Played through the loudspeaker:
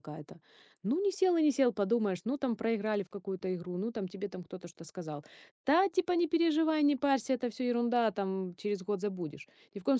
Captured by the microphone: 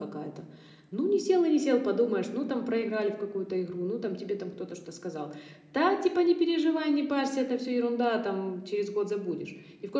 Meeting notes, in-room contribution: none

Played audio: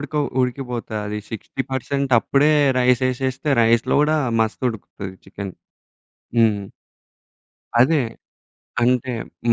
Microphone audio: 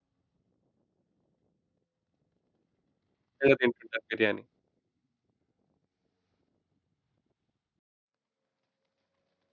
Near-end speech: present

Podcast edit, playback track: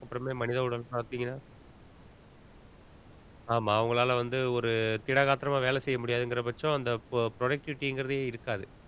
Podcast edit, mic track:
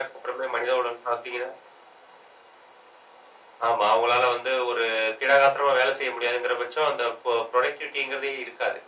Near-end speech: none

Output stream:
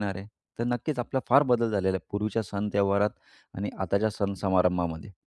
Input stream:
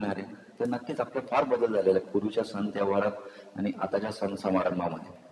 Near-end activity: none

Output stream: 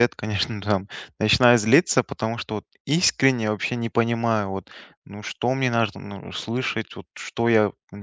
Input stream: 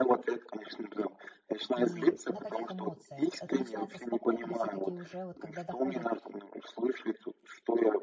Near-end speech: present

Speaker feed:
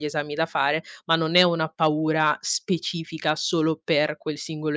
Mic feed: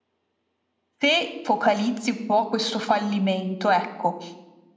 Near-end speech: present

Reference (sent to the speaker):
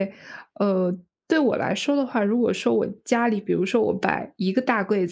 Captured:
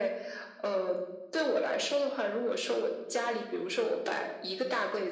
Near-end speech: none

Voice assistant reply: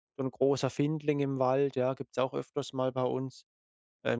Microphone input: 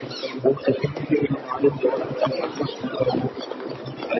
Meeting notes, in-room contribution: none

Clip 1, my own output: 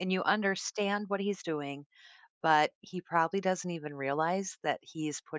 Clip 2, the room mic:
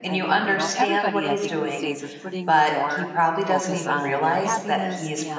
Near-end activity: present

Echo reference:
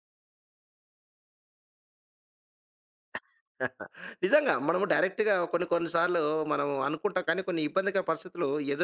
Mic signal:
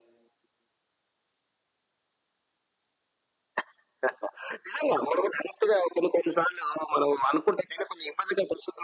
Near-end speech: none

